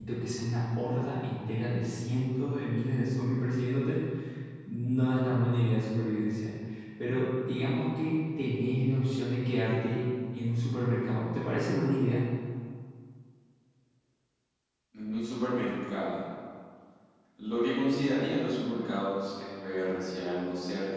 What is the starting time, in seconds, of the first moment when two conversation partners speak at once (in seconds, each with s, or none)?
none